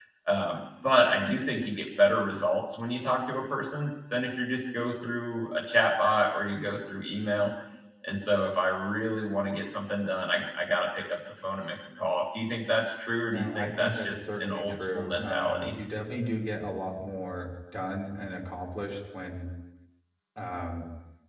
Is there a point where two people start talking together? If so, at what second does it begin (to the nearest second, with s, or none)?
13 s